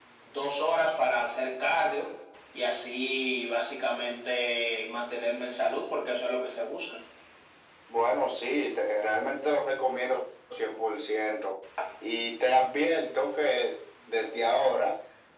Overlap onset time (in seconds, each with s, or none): none